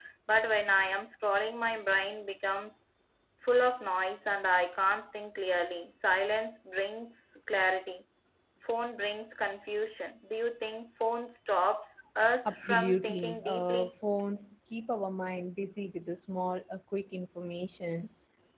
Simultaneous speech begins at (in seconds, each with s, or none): 12.4 s